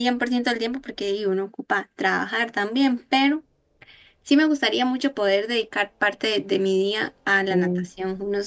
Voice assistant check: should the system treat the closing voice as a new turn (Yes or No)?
No